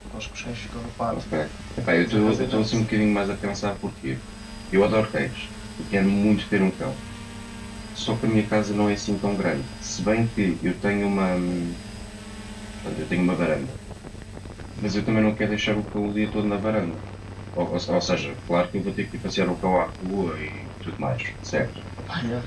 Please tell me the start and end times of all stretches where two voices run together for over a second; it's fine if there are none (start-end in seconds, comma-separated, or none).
2.0-3.3